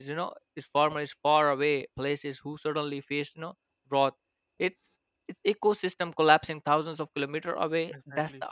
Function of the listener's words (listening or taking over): listening